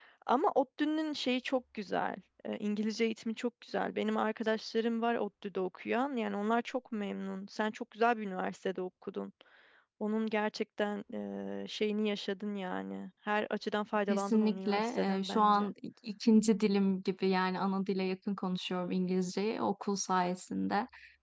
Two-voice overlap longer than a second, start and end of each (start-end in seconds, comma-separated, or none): 14.1-15.7